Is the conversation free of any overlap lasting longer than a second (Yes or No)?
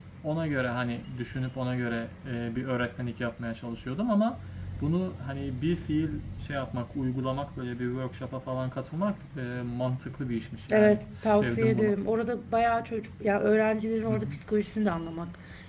No